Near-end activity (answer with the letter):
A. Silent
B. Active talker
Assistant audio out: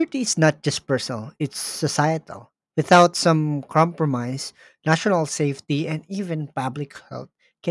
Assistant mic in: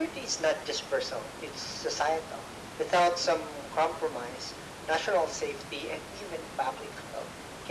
A